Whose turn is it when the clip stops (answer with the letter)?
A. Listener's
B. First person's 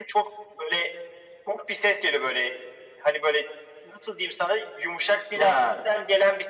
B